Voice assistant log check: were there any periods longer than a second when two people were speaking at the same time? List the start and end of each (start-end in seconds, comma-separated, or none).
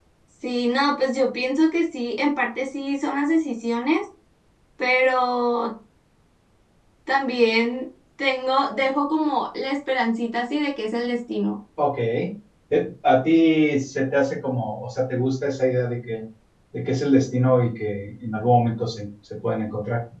none